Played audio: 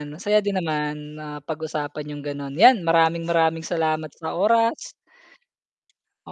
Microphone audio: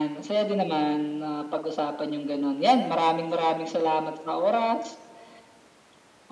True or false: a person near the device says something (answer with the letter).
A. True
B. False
B